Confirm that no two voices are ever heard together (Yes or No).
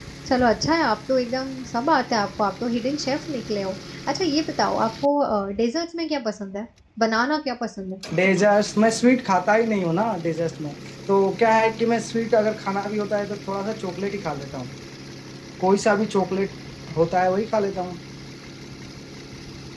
Yes